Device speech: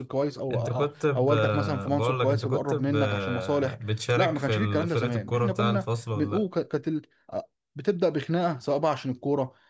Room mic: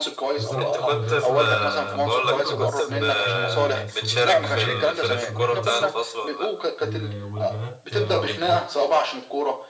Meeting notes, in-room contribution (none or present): present